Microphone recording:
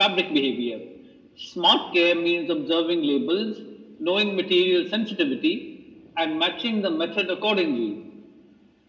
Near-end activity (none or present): none